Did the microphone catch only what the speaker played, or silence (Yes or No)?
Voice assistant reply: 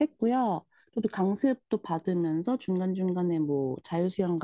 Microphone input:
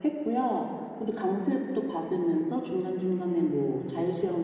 Yes